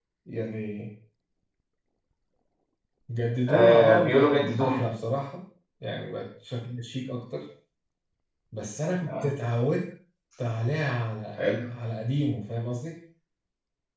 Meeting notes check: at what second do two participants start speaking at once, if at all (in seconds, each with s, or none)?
3.5 s